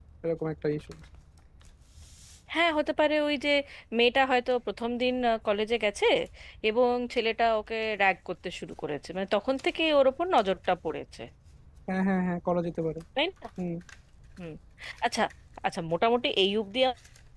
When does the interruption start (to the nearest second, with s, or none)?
none